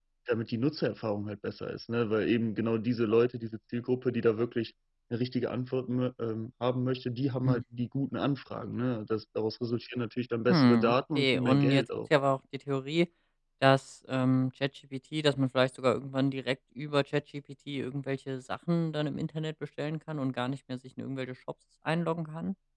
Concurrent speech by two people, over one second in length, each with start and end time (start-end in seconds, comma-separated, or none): 10.5-11.8